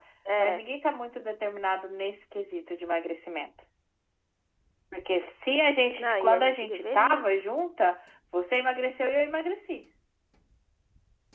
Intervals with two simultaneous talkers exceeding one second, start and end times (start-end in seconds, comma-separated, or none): 6.0-7.4